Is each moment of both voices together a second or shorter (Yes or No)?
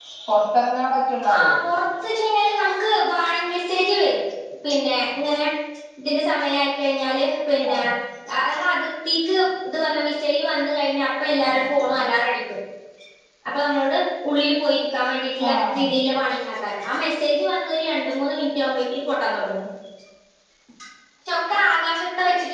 Yes